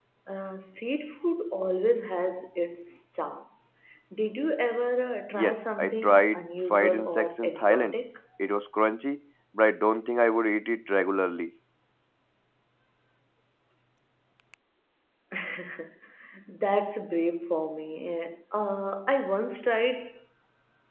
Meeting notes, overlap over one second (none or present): present